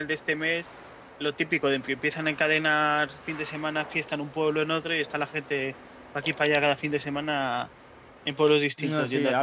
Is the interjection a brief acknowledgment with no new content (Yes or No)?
No